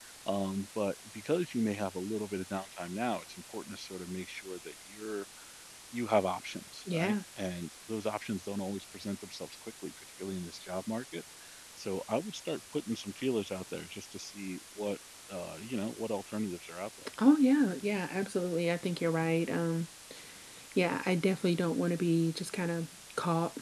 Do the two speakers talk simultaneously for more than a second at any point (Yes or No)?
No